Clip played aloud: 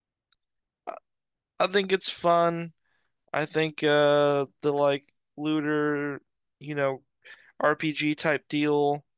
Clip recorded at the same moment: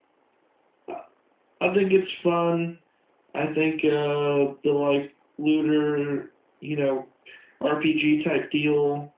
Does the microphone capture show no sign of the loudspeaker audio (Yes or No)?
No